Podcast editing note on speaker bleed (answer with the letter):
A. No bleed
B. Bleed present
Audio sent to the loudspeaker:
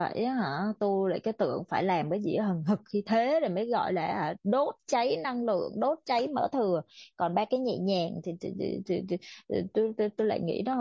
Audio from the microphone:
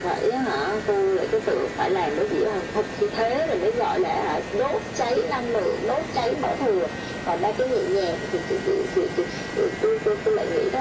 B